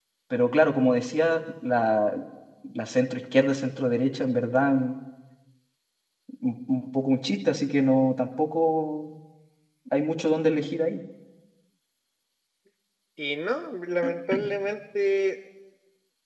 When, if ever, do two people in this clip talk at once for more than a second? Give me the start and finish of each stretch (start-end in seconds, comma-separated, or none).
none